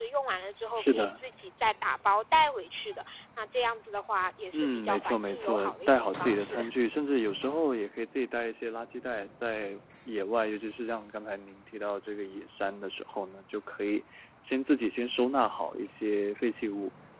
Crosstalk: present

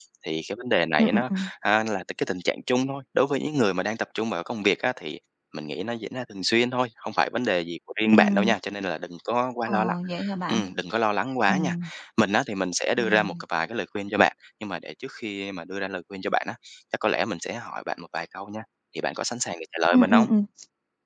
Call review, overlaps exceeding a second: none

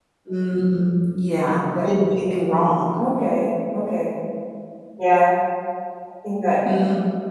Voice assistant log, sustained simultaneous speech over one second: none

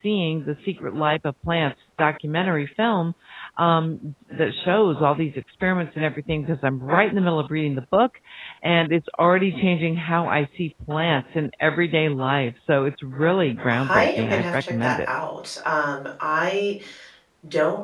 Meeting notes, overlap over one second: present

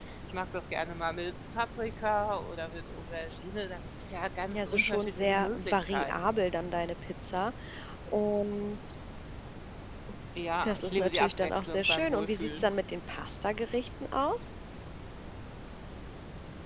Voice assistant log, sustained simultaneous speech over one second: present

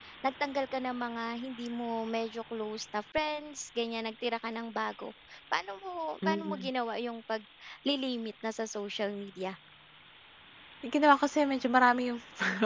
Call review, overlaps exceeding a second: none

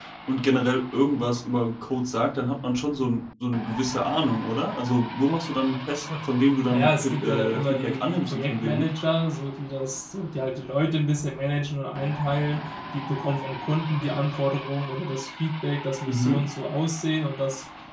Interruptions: present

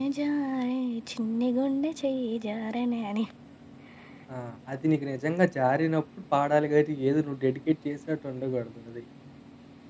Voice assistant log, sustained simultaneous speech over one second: none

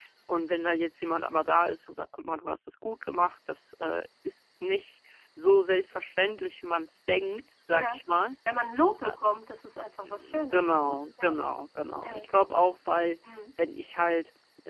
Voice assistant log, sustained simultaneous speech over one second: present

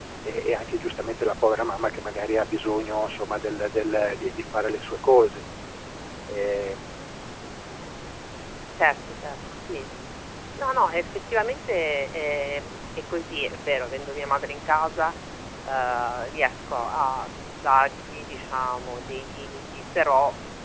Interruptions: none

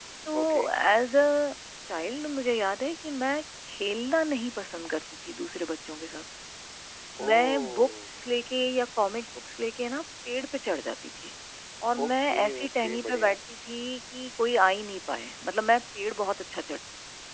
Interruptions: present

